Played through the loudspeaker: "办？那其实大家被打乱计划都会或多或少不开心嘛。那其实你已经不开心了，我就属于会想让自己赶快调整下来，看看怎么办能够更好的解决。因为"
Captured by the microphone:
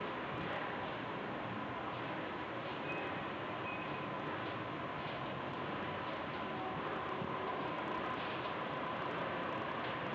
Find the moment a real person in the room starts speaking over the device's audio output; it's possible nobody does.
none

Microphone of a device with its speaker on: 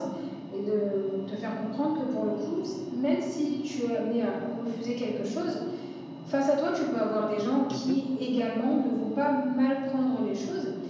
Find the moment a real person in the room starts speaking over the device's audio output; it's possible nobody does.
7.7 s

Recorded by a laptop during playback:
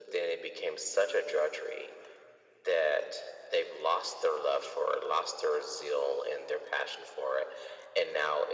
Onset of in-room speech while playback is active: none

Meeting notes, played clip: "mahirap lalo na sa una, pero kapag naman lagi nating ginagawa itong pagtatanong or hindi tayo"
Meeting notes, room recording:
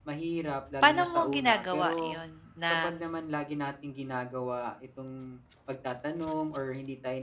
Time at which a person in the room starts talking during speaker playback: 0.8 s

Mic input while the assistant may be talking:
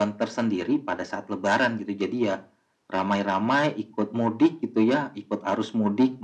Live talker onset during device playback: none

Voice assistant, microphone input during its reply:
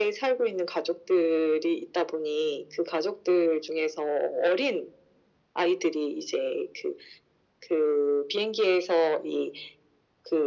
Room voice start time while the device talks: none

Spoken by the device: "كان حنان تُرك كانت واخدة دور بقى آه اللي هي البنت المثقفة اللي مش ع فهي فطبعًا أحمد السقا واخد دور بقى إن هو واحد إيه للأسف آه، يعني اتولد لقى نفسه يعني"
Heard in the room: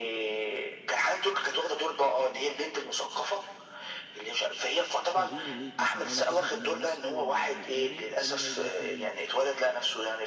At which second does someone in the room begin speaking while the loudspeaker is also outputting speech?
5.1 s

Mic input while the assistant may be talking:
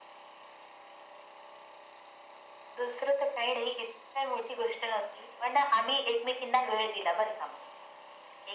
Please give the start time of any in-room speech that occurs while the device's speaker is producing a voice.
none

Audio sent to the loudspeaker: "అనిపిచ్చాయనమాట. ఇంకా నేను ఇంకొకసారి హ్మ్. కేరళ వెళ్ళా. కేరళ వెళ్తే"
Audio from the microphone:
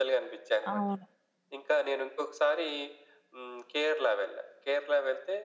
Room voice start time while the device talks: 0.7 s

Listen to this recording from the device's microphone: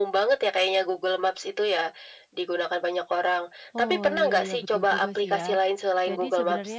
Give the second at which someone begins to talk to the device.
3.8 s

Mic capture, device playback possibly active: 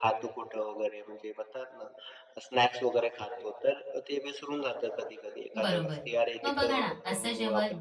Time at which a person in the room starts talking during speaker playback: 5.6 s

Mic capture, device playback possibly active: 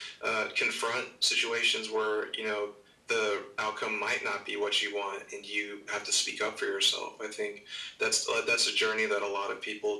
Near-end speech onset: none

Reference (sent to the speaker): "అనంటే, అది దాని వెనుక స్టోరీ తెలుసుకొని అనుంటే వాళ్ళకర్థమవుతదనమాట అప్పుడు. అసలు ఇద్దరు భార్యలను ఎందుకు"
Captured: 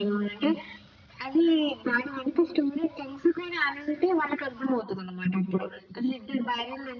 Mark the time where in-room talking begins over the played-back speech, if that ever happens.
none

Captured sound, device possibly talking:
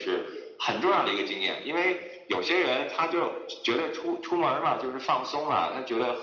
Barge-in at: none

